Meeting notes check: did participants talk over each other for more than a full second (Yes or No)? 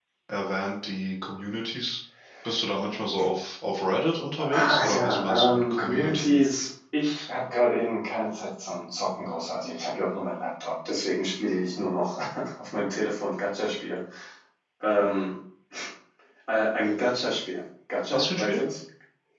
Yes